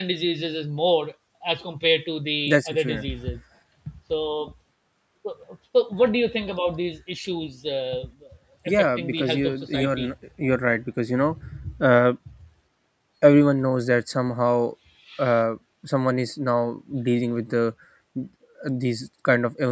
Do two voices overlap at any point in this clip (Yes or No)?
Yes